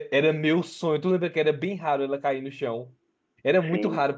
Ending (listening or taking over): listening